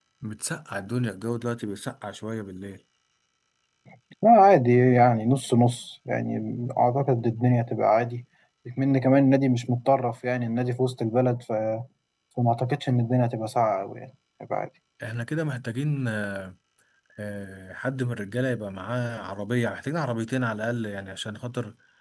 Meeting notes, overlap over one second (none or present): none